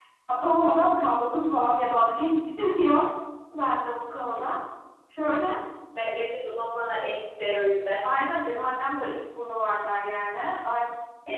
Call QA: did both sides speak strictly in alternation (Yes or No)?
Yes